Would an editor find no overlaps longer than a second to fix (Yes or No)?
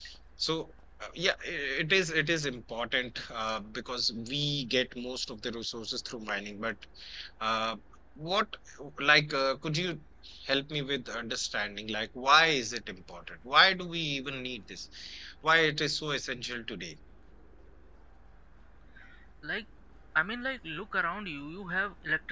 Yes